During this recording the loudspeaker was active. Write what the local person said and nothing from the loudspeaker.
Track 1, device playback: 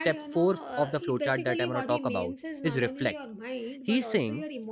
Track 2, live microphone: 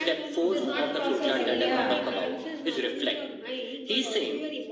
it is not possible yeah

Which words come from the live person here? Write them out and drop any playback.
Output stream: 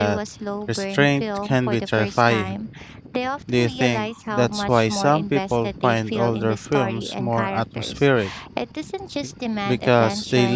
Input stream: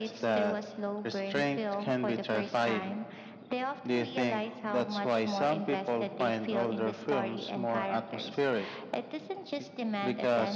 none

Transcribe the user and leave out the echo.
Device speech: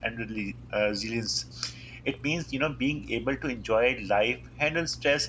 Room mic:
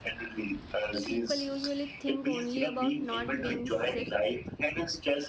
people usually think only about not being sick

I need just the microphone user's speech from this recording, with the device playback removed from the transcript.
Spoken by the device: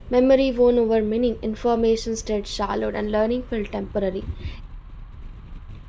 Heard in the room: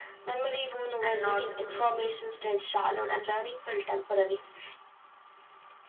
and not mystery.

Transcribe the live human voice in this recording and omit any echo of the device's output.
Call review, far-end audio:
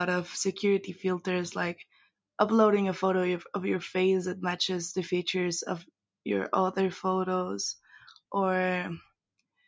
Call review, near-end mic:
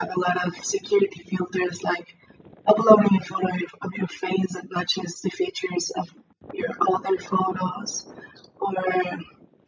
none

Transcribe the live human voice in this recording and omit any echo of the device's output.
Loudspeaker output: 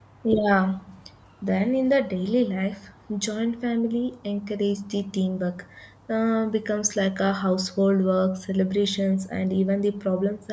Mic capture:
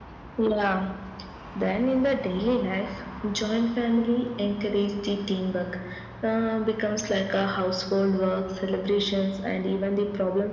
none

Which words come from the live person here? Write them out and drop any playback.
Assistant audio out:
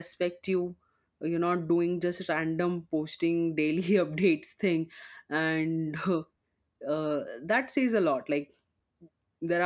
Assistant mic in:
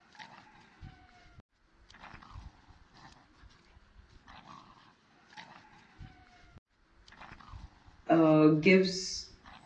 uh, gives

